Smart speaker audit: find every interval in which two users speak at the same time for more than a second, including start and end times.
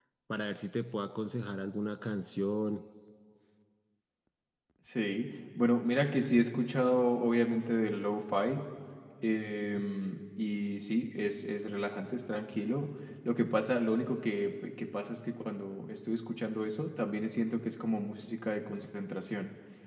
none

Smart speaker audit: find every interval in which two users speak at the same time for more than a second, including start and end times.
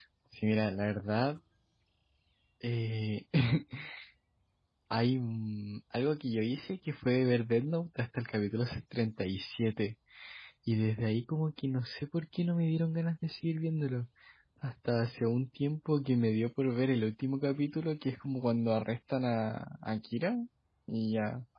none

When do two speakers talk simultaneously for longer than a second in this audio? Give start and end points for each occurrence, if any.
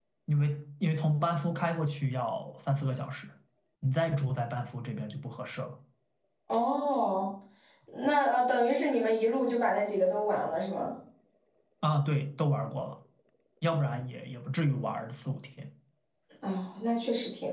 none

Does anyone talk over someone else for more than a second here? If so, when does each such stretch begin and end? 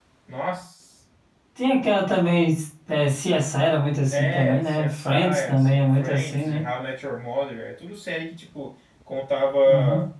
4.1-6.6

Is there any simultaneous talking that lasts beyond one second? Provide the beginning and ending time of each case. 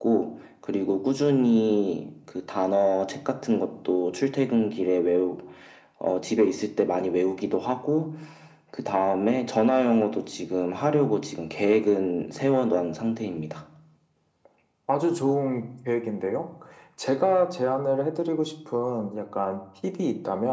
none

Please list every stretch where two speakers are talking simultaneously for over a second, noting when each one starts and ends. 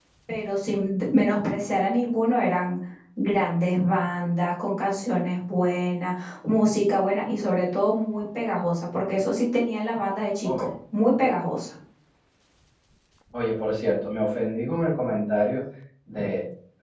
none

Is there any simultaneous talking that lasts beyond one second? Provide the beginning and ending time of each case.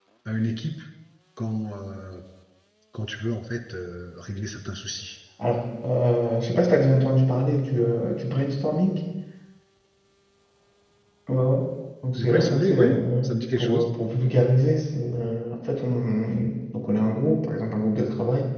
12.2-13.9

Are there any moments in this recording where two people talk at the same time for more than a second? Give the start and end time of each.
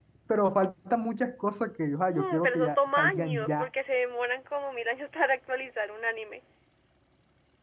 2.1-3.7

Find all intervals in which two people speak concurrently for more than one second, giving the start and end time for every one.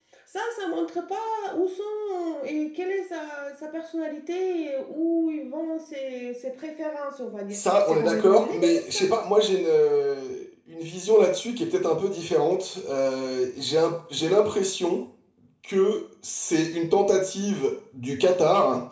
7.5-9.0

